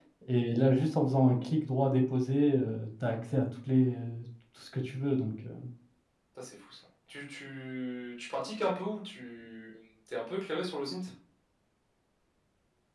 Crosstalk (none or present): none